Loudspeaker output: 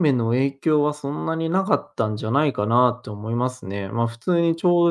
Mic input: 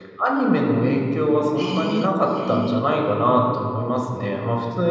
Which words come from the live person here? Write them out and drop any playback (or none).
へえ。